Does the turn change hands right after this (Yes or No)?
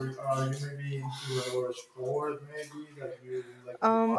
Yes